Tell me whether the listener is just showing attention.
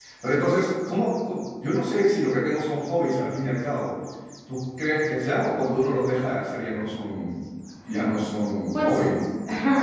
No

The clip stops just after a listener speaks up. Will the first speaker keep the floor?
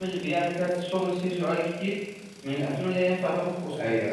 No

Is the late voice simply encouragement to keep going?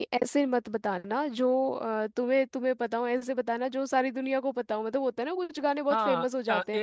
No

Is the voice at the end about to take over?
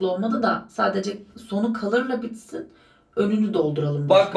Yes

